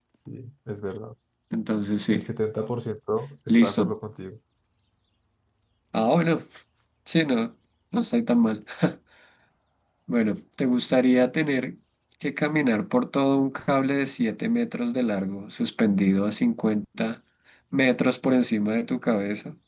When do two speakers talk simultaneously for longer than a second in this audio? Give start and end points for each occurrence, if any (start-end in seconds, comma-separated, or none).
none